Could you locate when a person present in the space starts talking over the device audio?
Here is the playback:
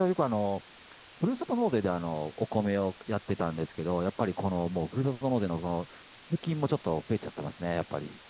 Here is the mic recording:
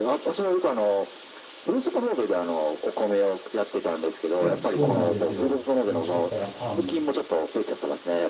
4.4 s

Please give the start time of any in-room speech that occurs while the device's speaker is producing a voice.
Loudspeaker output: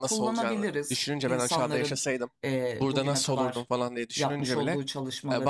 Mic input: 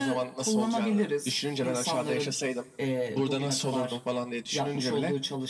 none

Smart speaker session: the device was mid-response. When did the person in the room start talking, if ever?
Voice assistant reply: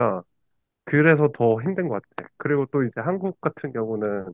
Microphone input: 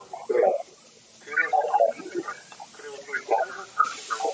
none

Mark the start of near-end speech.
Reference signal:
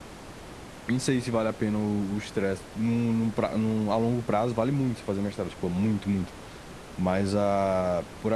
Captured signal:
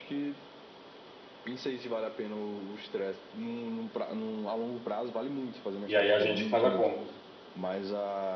5.9 s

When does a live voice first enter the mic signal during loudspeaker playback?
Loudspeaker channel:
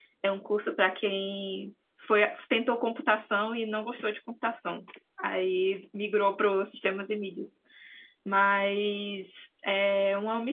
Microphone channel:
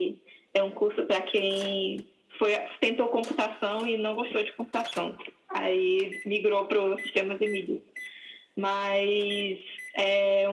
none

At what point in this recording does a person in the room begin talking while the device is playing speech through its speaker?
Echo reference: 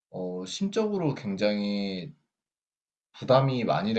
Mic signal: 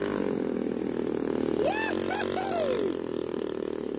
none

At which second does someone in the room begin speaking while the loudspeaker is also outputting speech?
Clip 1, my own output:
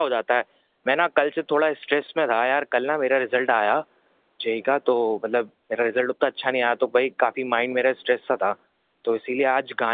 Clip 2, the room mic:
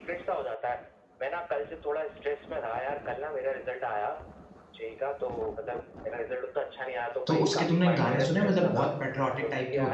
7.3 s

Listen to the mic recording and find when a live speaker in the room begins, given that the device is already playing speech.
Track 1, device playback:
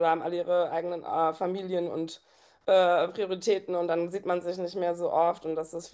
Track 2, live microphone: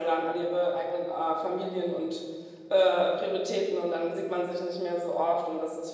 none

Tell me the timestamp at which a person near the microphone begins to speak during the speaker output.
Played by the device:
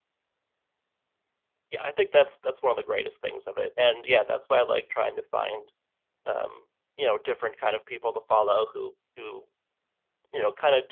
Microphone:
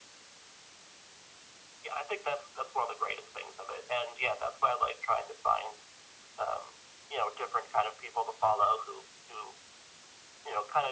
none

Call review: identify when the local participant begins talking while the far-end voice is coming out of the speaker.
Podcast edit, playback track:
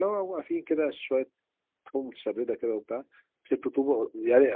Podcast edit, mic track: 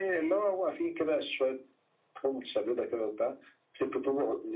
none

